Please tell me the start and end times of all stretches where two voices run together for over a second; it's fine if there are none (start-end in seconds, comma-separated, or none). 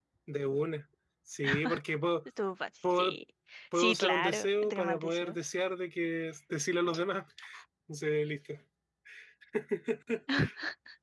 3.8-5.4